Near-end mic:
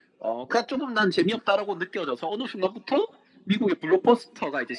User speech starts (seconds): none

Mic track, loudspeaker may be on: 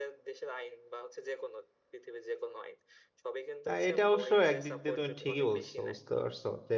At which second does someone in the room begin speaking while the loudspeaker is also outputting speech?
4 s

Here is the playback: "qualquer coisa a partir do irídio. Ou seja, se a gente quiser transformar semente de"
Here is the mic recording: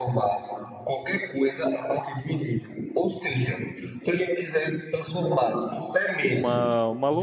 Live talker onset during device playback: 6 s

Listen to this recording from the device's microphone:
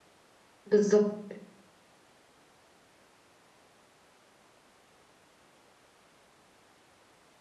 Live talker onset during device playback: 1 s

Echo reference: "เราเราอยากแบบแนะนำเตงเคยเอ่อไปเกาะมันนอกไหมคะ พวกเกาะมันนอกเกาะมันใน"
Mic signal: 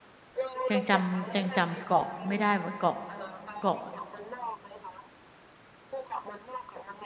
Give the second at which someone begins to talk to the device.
1 s

